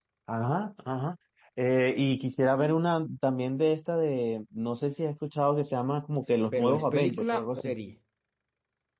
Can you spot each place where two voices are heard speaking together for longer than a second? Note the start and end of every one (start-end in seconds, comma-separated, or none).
6.5-7.7